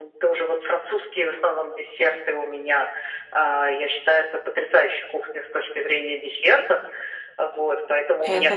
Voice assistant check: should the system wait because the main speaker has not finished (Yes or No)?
Yes